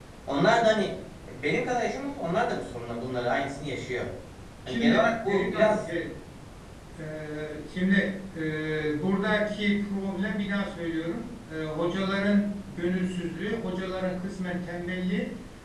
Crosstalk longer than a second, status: present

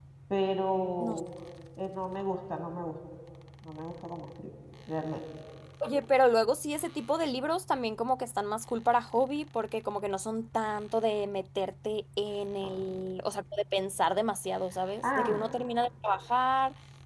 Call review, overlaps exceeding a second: none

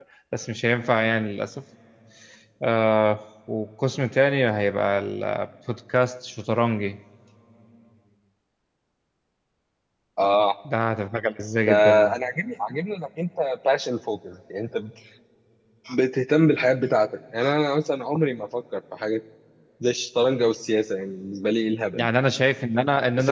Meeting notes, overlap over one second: none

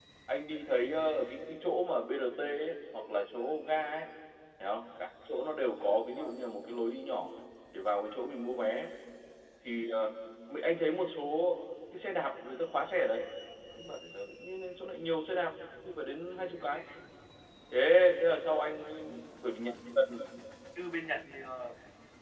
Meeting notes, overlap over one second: none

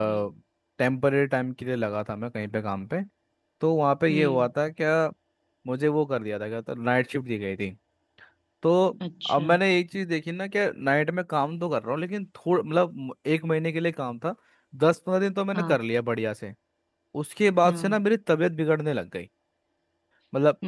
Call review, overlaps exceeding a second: none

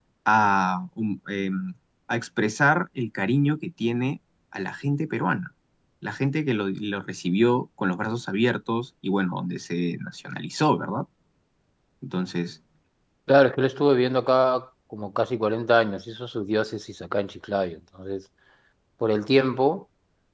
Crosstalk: none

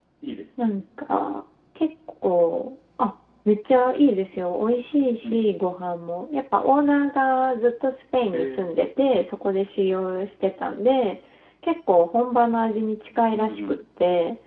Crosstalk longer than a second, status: none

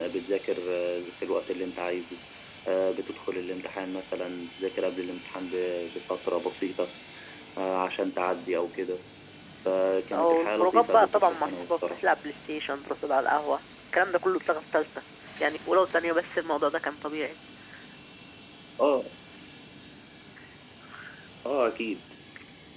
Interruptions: present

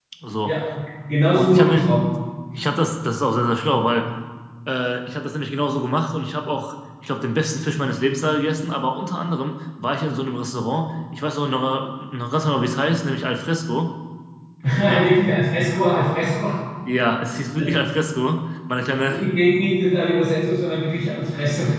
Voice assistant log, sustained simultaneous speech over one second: none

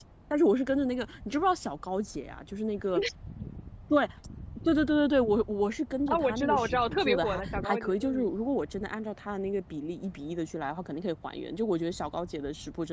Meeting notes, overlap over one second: present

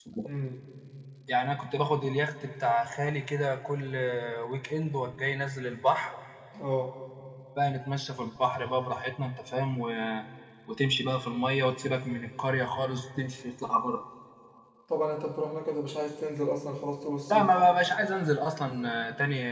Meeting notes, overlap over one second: none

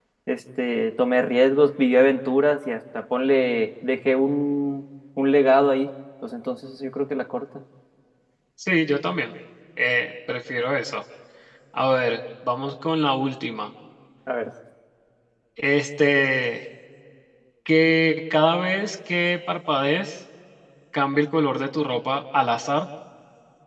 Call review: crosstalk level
none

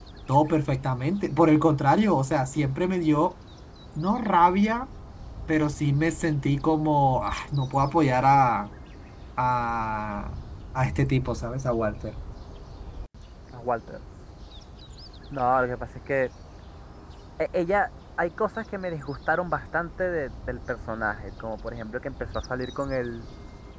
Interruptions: none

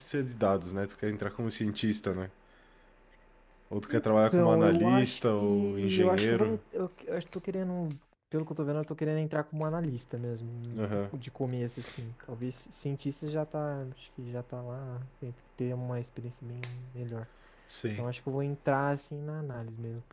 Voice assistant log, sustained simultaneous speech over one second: present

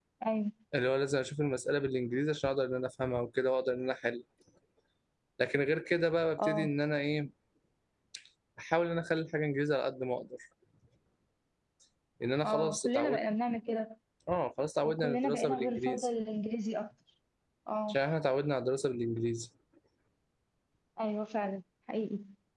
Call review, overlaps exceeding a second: present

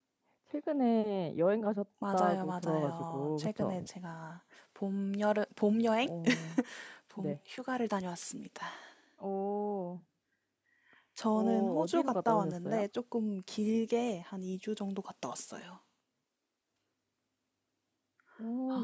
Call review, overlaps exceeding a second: present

